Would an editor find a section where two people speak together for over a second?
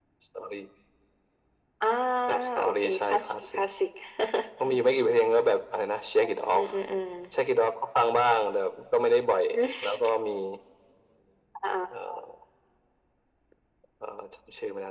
Yes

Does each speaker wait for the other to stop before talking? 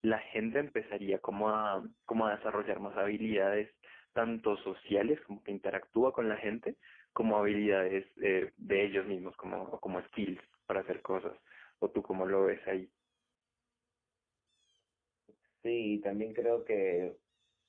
Yes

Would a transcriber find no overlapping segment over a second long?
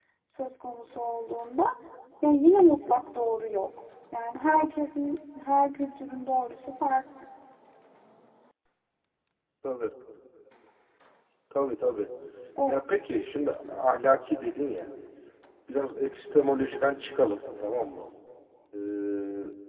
Yes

